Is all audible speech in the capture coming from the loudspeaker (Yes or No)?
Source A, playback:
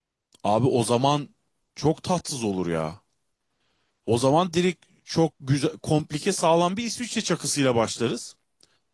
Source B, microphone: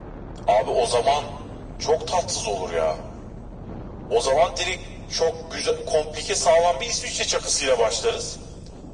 Yes